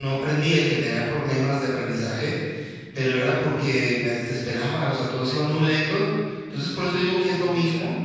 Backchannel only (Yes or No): Yes